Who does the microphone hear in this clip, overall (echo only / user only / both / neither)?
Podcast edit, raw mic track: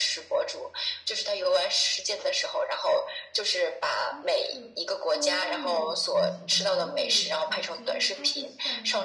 both